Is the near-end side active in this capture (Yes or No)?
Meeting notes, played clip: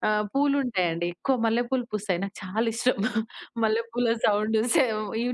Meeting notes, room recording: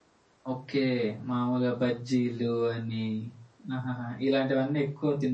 Yes